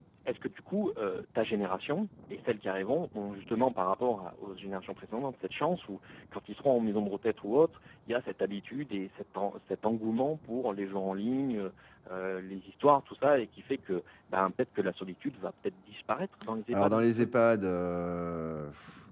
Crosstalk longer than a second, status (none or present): none